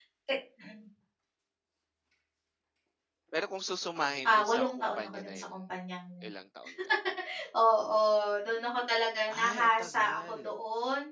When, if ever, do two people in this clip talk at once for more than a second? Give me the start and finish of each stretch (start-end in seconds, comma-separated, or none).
4.2-5.5, 9.3-10.5